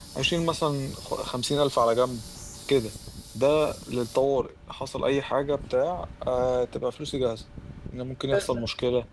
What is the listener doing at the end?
listening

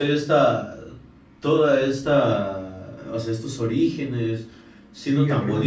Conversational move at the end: taking over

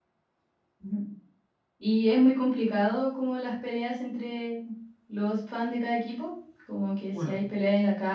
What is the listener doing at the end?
listening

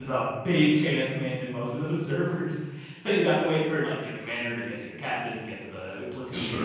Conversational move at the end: taking over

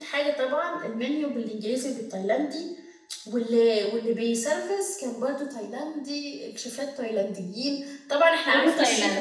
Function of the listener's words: listening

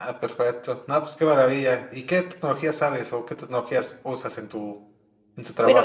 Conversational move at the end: taking over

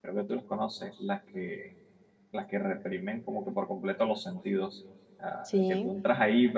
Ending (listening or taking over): listening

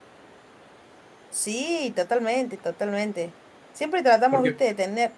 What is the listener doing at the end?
listening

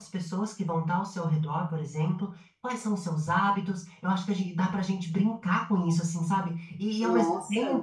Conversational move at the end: listening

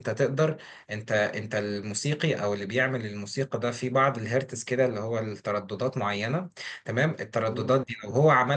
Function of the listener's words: listening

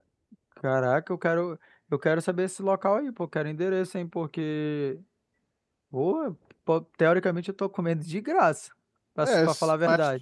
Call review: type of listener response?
taking over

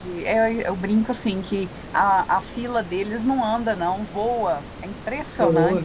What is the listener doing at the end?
taking over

